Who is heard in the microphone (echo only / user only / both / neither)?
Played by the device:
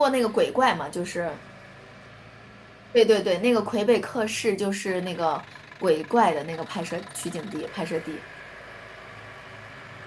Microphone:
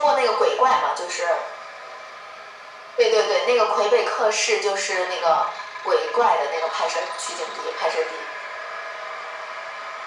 echo only